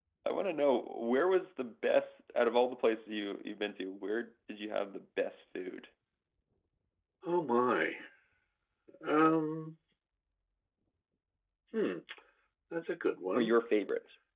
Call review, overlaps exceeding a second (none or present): none